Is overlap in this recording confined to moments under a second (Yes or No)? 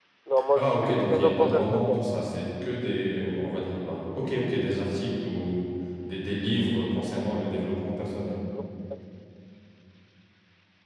No